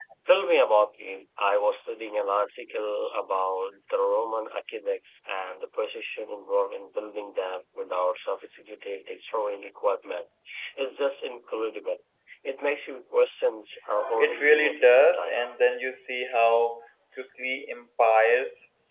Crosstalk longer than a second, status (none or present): present